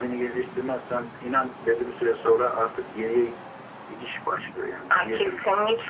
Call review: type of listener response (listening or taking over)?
taking over